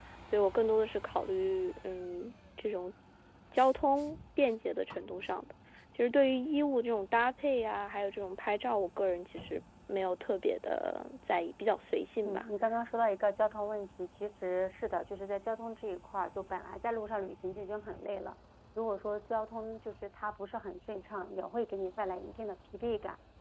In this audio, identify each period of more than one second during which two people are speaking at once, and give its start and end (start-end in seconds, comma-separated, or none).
none